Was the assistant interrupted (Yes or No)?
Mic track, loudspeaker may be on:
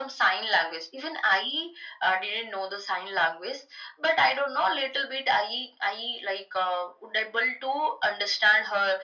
No